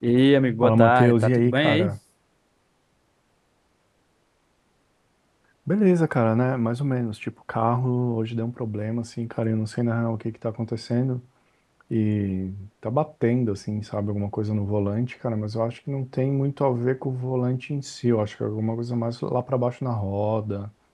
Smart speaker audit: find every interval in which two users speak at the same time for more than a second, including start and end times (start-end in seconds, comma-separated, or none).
0.6-1.9